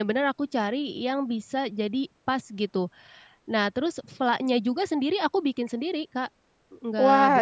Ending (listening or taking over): taking over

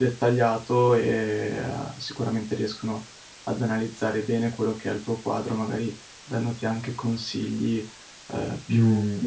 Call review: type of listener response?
taking over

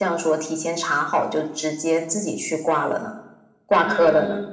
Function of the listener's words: taking over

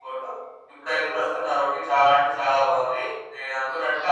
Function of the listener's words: listening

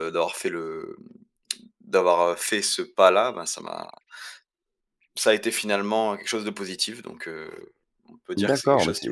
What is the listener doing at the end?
taking over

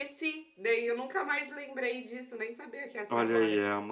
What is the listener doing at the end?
taking over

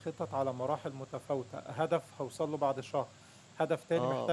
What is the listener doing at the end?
listening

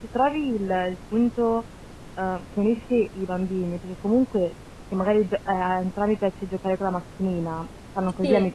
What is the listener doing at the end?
listening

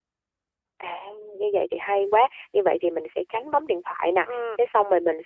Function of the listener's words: listening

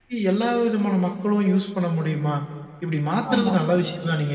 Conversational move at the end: listening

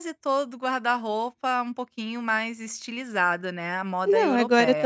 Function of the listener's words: taking over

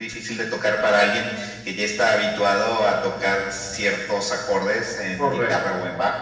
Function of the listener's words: taking over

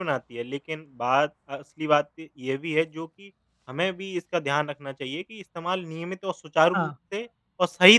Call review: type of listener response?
listening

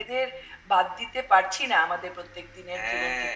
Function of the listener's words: taking over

